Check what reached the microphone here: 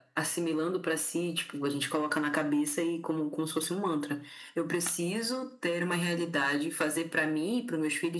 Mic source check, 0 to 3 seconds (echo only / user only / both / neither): echo only